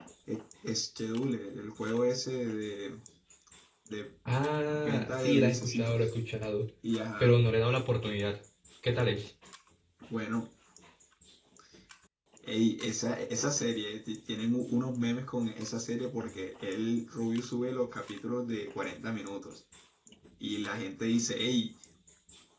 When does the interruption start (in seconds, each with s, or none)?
4.7 s